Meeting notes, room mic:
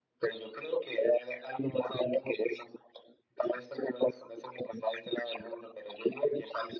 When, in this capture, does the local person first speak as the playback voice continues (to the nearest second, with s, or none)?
none